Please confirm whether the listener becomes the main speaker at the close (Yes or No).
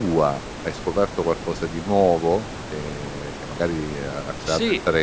Yes